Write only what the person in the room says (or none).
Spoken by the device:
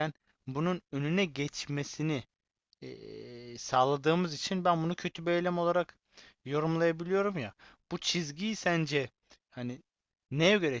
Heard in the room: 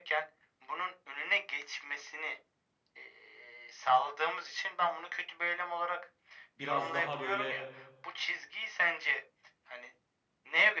biraz daha böyle